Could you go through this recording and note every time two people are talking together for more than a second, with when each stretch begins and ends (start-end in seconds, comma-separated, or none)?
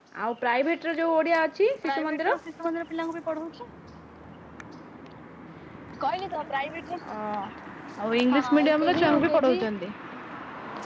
8.3-9.6